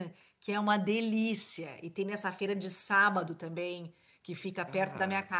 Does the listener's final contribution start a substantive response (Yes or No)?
No